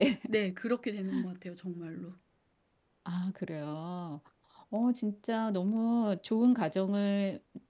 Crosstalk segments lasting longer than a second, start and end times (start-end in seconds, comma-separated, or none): none